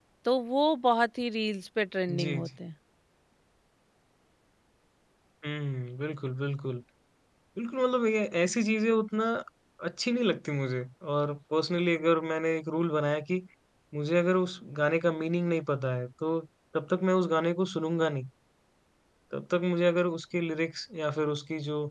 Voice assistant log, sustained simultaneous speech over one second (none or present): none